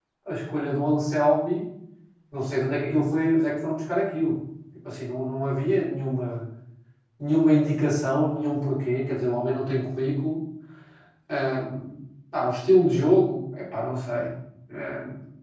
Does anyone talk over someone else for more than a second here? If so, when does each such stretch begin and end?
none

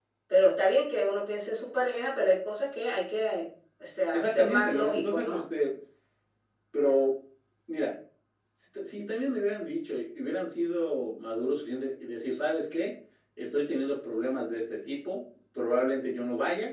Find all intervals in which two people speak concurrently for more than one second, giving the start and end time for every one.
4.1-5.4

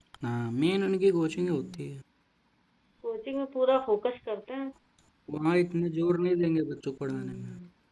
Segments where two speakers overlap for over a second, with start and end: none

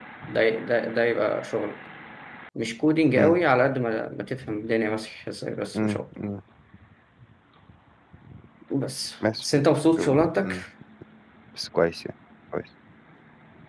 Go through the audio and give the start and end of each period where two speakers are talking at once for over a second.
9.4-10.6

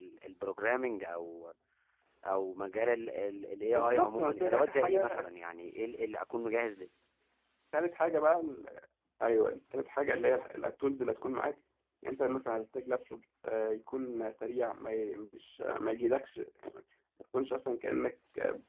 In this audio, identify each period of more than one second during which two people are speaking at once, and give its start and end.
3.8-5.3

